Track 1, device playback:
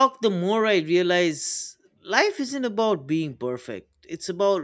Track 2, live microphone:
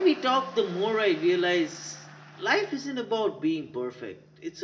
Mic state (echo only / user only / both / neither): echo only